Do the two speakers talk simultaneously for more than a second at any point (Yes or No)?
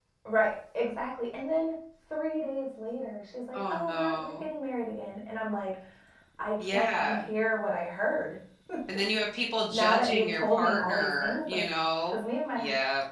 Yes